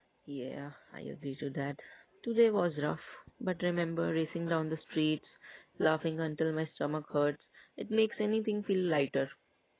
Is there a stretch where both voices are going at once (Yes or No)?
No